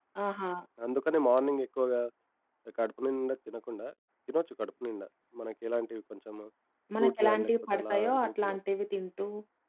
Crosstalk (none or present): present